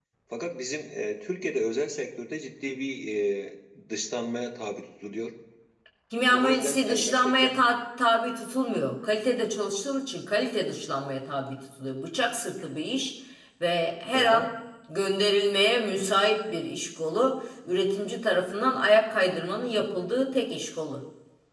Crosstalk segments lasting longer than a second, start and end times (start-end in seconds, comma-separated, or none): 6.2-7.5